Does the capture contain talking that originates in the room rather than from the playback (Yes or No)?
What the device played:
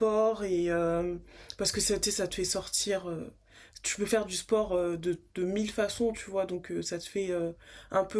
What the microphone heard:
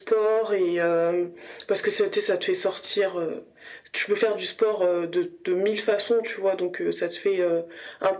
No